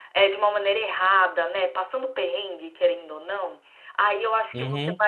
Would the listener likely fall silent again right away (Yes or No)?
Yes